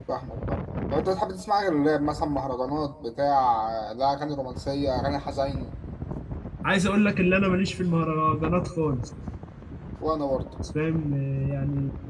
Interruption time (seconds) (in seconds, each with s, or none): none